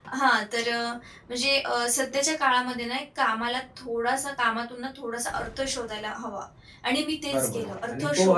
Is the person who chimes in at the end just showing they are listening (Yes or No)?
No